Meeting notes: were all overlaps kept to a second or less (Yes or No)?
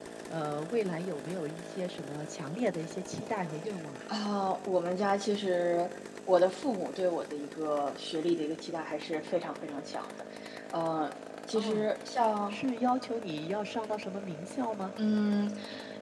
Yes